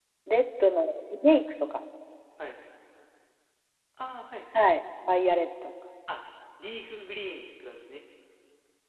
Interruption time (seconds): none

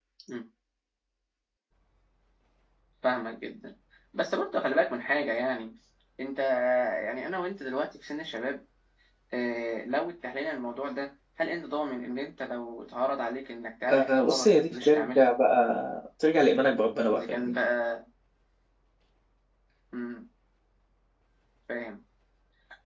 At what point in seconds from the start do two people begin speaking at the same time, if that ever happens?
13.9 s

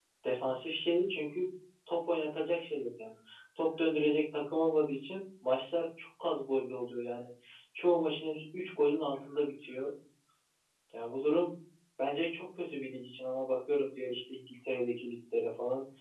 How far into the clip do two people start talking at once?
none

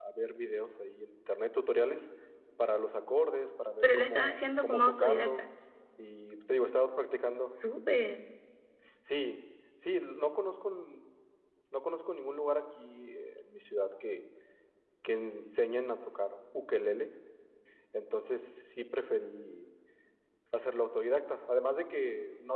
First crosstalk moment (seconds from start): 3.8 s

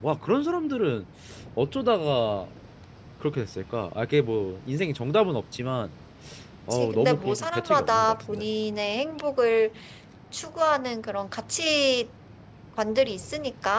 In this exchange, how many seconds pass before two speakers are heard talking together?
6.7 s

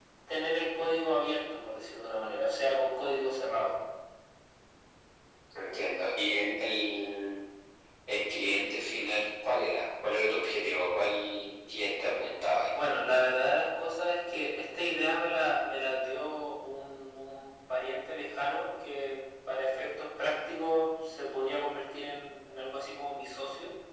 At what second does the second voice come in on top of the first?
none

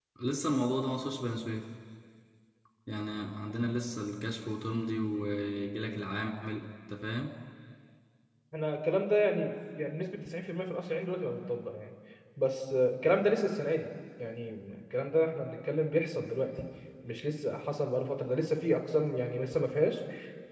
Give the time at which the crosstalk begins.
none

